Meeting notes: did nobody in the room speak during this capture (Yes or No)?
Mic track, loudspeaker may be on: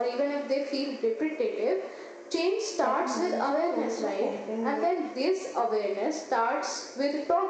No